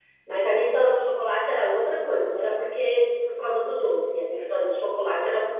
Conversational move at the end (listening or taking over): listening